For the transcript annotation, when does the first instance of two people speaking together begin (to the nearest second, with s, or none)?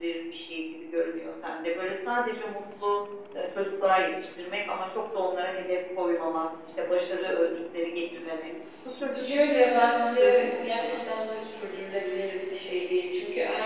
9 s